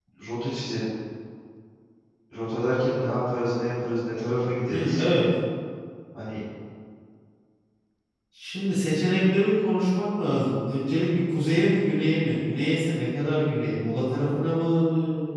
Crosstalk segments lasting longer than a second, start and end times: none

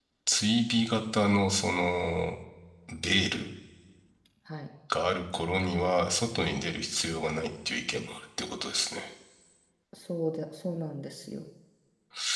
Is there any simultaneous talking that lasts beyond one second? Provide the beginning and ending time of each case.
none

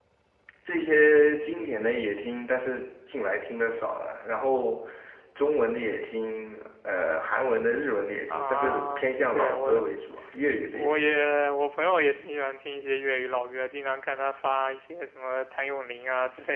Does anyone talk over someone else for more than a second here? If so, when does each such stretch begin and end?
8.3-9.9

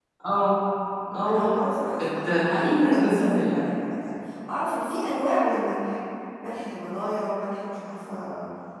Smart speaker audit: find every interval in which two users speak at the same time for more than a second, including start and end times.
2.2-3.7

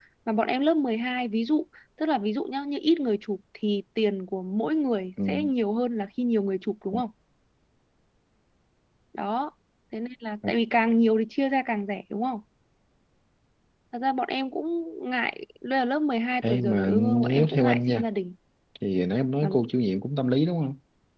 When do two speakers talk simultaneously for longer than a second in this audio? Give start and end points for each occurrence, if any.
16.4-18.0

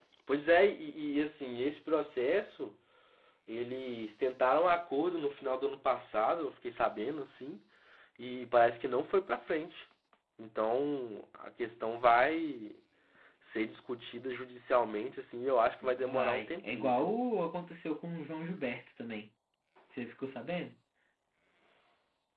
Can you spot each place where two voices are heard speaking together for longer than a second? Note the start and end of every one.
15.8-17.1

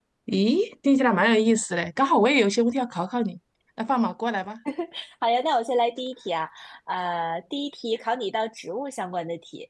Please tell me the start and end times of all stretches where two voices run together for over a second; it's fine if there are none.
none

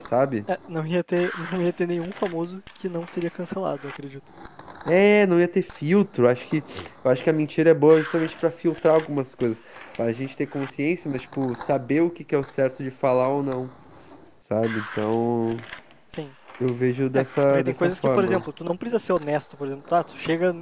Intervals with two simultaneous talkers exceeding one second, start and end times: 17.1-18.4

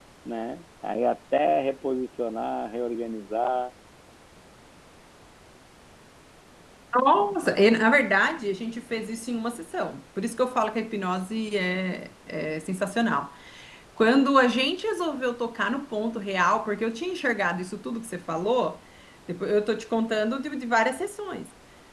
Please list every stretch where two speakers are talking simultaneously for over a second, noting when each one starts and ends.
none

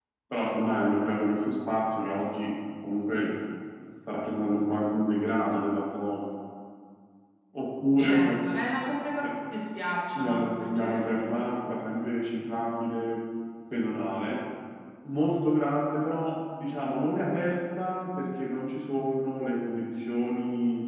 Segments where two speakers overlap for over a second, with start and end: 10.2-11.4

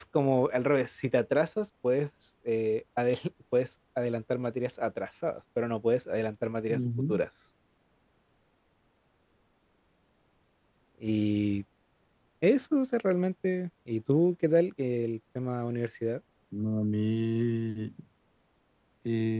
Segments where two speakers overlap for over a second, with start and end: none

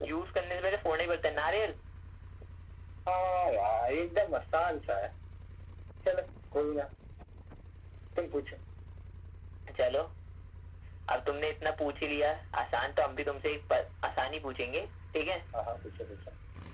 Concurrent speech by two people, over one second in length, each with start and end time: none

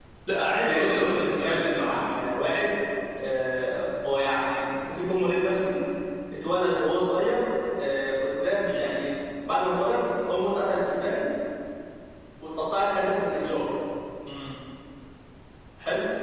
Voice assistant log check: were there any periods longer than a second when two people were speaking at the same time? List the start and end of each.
0.6-2.1

